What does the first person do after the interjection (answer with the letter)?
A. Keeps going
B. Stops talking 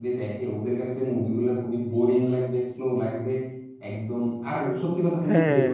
A